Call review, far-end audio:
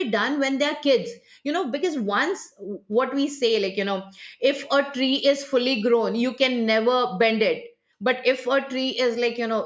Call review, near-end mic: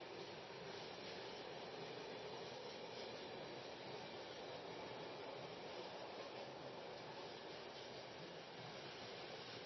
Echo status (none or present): none